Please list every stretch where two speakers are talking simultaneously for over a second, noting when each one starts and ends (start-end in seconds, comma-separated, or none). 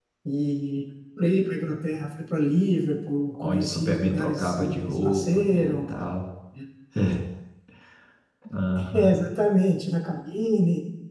3.4-5.8